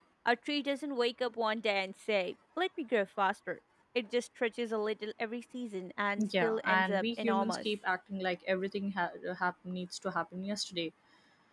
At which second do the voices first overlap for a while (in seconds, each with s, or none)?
6.2 s